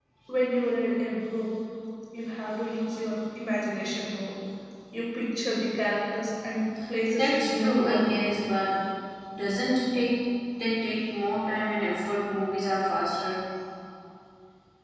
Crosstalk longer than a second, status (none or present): present